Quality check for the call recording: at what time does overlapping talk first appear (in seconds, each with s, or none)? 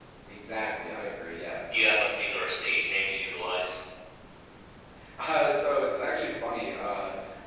none